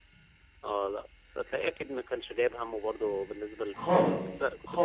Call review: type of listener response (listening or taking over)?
taking over